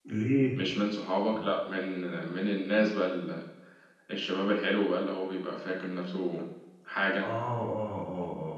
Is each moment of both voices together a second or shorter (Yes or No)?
Yes